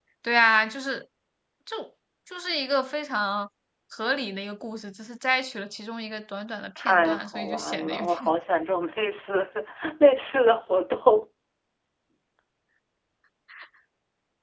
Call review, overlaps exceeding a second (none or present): present